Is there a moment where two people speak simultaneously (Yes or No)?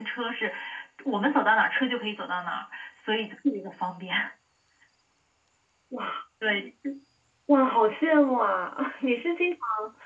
No